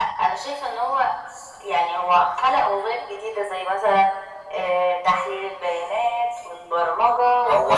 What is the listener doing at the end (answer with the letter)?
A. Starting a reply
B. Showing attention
A